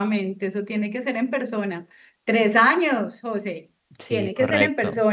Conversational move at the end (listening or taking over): listening